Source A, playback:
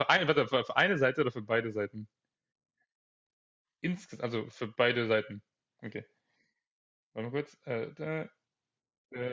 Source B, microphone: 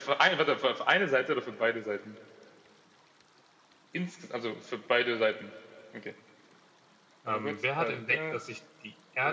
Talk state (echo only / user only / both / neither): both